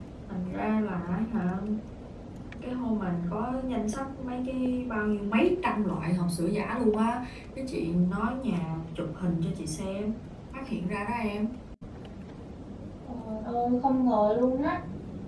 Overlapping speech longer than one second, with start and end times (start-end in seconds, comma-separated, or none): none